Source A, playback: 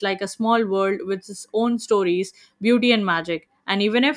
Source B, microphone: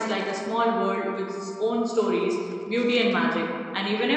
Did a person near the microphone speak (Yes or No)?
No